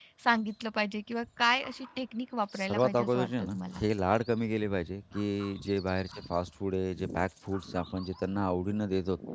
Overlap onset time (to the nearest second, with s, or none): 3 s